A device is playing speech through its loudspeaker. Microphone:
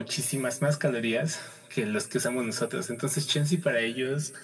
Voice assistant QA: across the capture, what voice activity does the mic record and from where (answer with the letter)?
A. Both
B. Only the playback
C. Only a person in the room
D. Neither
B